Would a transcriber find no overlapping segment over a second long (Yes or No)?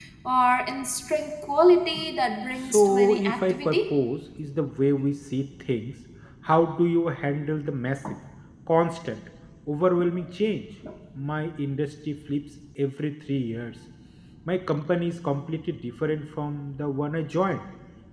No